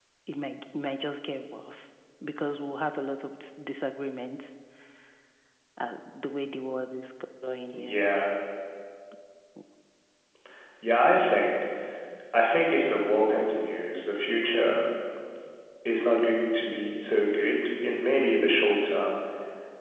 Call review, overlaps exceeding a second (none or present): none